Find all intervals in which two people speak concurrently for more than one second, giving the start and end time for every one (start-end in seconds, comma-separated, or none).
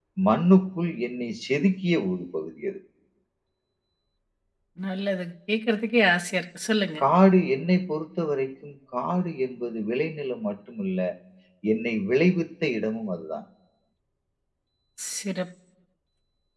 none